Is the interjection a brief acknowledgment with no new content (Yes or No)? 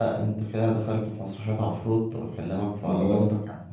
Yes